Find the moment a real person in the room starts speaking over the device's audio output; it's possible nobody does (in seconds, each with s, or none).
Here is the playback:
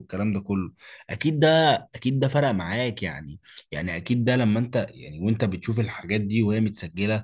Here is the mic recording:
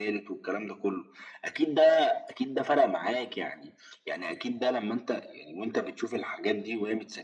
none